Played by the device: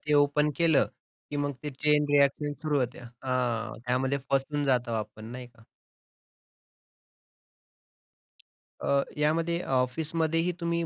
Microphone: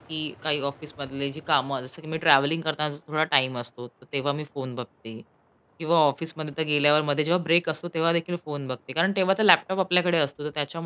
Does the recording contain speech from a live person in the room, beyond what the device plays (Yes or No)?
Yes